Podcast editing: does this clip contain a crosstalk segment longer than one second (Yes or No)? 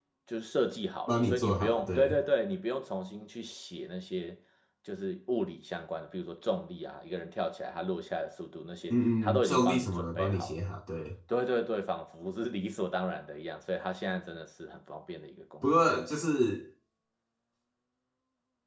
Yes